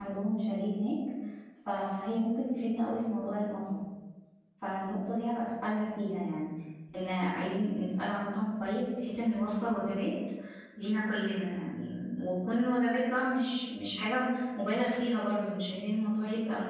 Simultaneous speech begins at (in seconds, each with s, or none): none